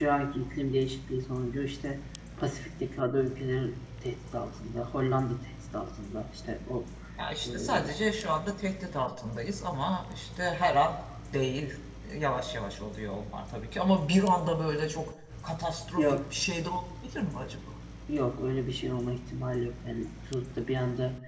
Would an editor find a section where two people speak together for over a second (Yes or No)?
No